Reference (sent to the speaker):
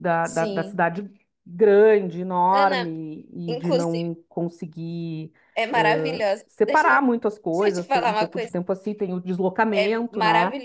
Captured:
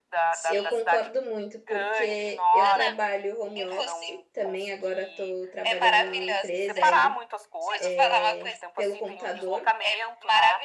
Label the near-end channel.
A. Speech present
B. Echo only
A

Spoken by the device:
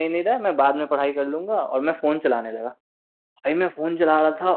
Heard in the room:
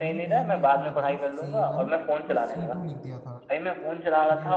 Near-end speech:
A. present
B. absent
A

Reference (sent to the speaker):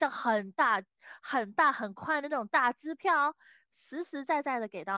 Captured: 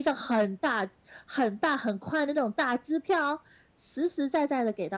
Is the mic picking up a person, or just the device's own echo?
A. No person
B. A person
A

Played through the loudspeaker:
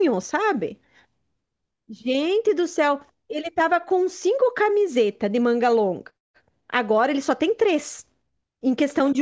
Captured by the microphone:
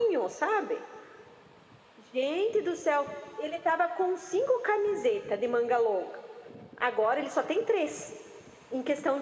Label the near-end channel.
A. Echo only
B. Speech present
A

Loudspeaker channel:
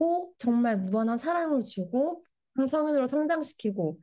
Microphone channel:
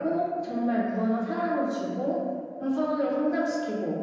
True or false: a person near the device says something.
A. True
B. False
B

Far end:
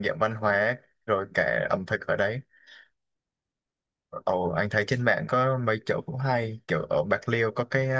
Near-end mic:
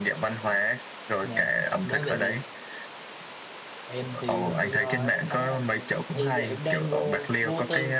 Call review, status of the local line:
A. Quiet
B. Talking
B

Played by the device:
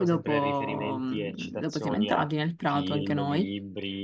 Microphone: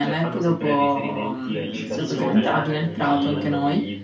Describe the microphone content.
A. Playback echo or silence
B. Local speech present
B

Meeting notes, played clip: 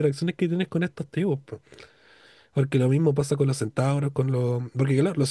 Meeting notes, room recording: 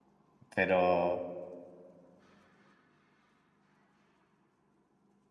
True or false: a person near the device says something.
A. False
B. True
B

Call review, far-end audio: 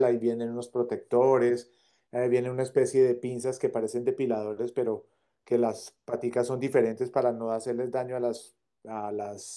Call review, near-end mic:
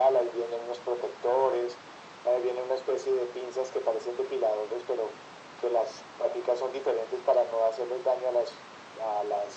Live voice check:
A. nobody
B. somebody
A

